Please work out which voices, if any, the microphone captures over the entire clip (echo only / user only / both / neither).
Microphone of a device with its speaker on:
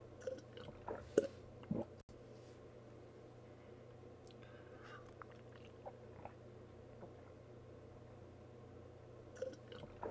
neither